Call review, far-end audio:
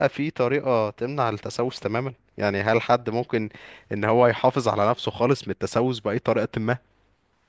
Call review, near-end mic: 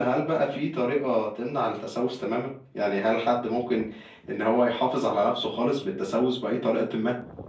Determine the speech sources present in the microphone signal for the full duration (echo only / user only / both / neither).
echo only